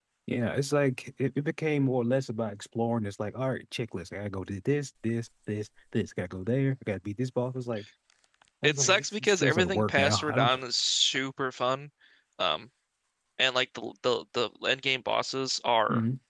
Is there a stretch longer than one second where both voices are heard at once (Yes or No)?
Yes